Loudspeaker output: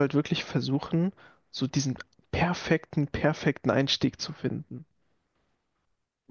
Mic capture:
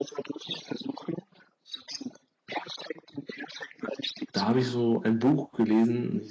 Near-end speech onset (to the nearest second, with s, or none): 4 s